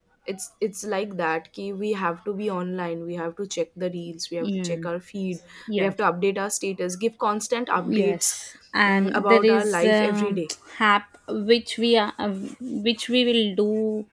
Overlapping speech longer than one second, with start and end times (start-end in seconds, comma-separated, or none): 8.9-10.4